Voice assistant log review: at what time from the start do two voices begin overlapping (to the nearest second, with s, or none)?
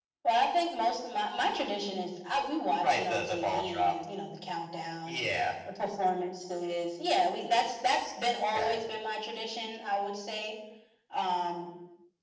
3 s